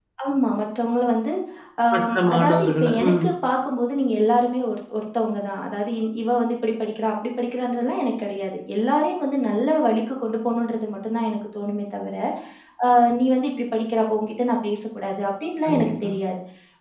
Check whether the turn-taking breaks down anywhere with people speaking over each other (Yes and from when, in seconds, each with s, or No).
Yes, from 1.9 s